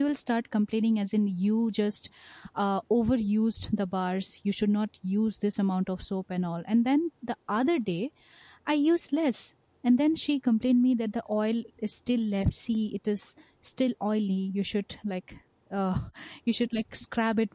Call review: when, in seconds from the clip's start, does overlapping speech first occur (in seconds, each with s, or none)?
none